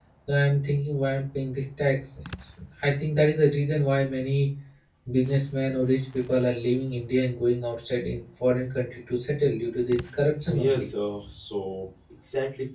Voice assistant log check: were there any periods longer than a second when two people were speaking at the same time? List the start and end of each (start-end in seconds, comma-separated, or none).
none